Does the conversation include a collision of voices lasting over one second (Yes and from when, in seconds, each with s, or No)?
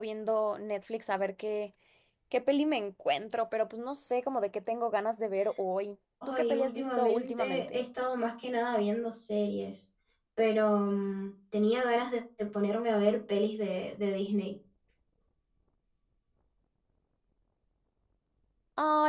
Yes, from 6.2 s